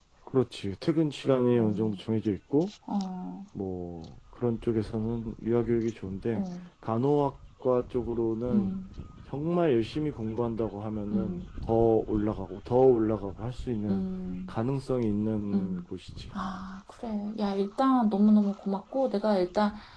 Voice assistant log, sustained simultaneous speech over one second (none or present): none